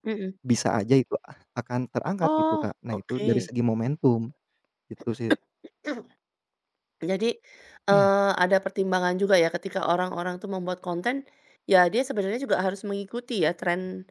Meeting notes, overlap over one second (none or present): present